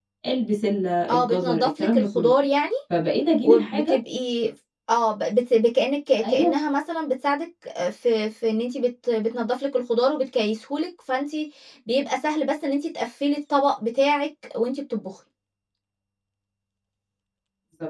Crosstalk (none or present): present